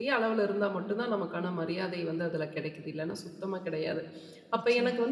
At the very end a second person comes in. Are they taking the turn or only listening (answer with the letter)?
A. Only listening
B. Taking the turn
A